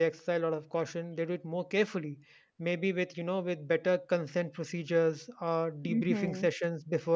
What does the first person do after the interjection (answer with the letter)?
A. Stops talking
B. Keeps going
B